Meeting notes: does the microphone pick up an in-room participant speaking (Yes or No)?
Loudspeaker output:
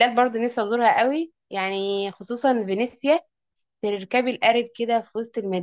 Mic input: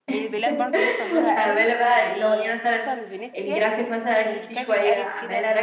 Yes